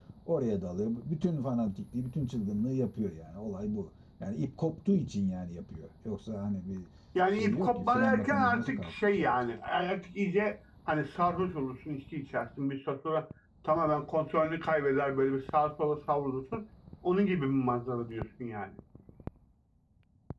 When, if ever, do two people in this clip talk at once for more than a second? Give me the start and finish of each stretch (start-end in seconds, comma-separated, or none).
7.3-9.3